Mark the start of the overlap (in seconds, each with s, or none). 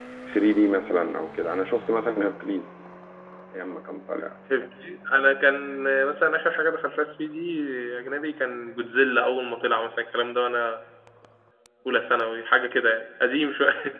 none